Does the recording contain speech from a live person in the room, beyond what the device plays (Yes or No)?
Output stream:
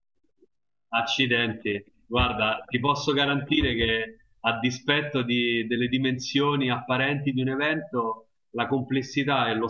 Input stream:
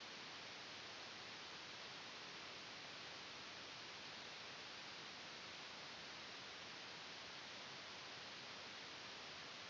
No